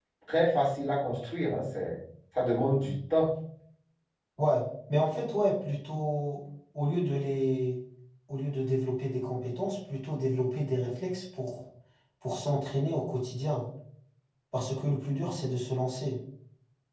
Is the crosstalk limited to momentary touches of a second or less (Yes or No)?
Yes